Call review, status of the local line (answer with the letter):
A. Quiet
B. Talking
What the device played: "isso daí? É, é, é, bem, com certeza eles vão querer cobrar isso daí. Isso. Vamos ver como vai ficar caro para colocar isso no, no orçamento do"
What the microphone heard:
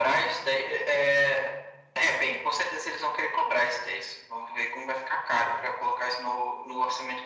A